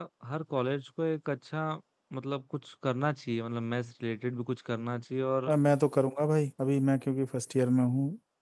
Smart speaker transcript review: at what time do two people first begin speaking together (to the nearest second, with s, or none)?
none